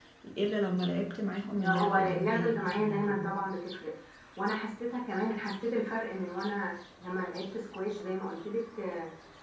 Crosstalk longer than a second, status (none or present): present